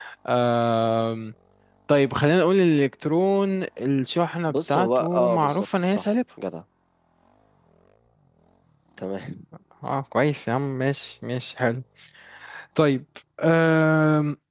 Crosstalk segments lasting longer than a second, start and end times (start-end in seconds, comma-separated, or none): 4.5-6.1